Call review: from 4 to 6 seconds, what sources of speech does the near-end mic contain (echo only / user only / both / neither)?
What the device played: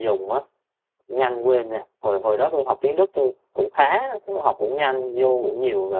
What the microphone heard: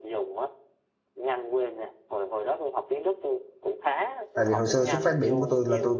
both